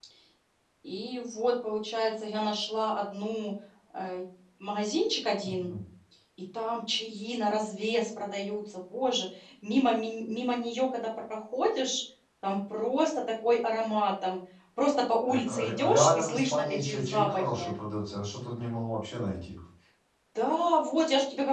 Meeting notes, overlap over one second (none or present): present